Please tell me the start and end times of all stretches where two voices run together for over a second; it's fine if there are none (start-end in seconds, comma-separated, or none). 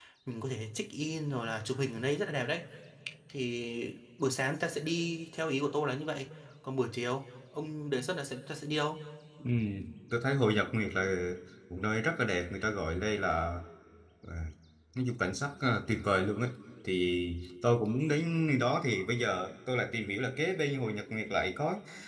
none